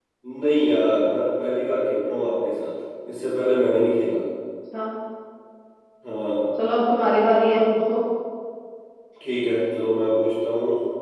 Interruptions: none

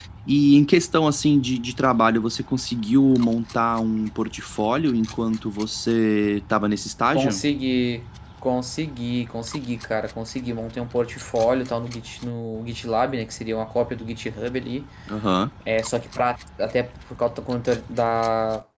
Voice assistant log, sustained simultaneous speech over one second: none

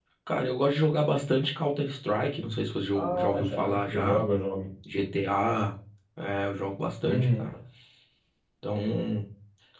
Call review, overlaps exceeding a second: present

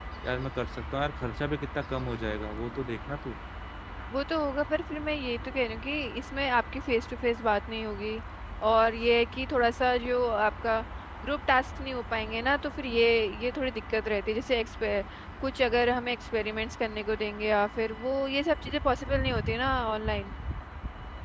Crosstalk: none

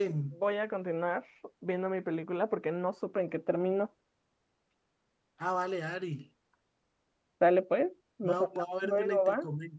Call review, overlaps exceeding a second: present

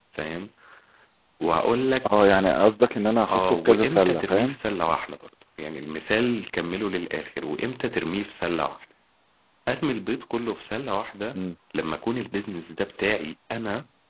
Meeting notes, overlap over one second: present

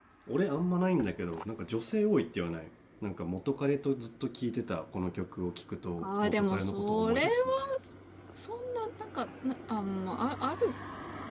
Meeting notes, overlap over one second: present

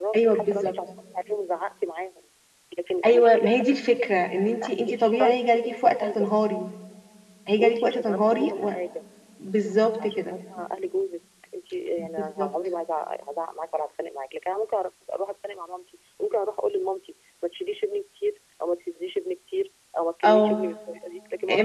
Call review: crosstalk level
present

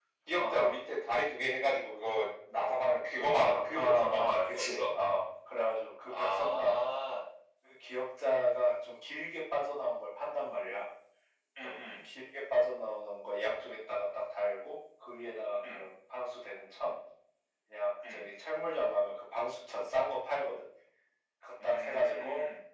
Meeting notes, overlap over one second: present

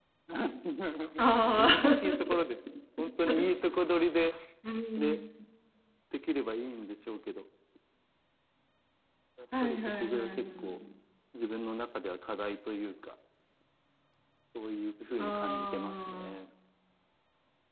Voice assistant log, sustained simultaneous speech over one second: present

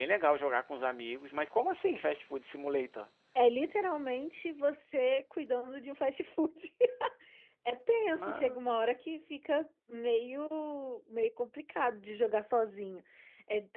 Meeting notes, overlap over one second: none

